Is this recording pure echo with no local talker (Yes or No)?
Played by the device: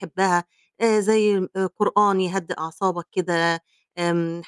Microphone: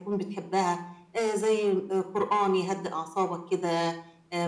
Yes